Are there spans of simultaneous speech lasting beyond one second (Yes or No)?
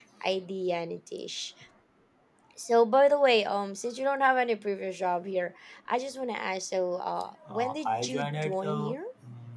Yes